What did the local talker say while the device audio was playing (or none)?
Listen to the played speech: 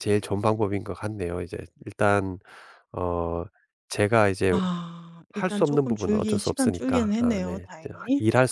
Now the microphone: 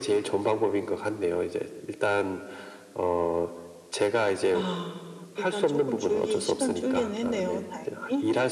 none